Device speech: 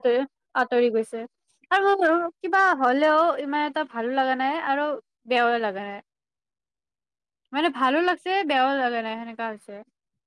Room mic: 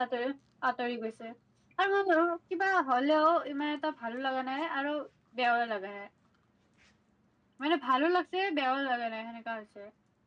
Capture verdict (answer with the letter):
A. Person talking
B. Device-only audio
B